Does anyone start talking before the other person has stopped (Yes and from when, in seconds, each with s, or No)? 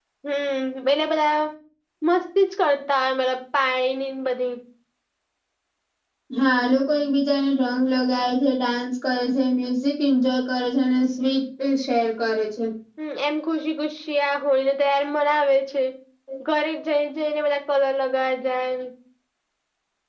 No